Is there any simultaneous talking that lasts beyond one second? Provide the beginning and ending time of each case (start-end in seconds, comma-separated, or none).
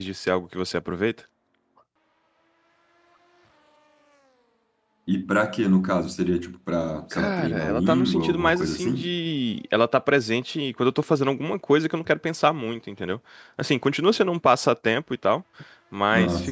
7.1-9.1